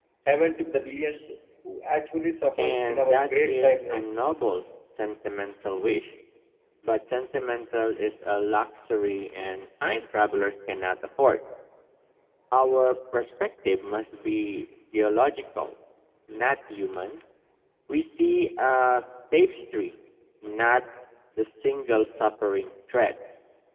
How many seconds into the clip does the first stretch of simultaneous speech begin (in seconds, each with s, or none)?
2.6 s